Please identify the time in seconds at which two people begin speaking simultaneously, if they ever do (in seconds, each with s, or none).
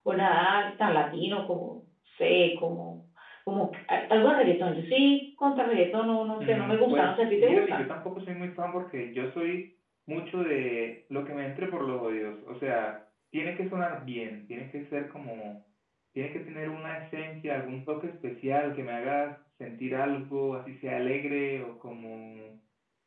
6.4 s